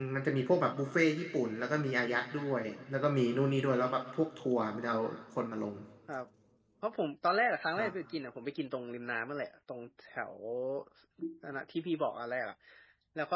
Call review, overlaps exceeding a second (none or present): none